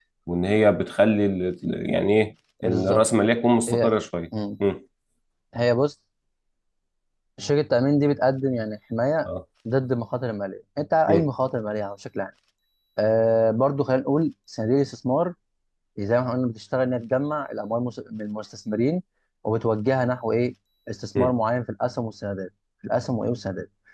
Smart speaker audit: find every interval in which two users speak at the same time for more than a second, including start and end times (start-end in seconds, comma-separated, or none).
none